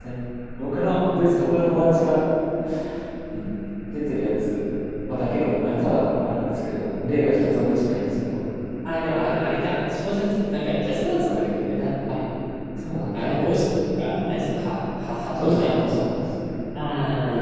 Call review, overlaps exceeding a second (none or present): none